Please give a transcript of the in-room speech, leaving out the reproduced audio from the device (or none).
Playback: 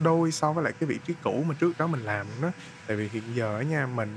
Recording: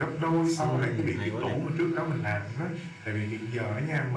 Ừm, hay quá nè.